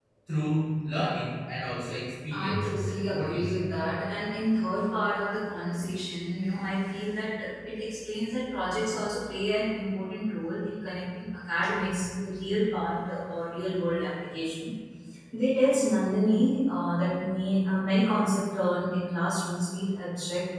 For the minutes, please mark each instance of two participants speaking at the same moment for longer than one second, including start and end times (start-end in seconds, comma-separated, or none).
2.3-3.6